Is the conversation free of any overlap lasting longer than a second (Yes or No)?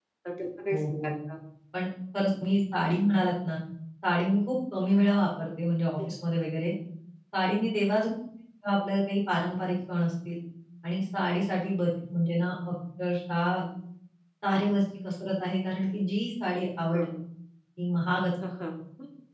Yes